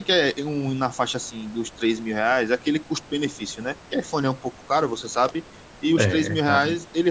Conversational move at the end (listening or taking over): listening